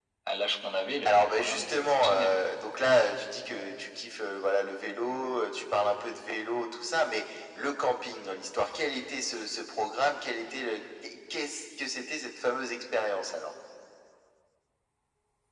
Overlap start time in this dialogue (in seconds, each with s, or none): 1.1 s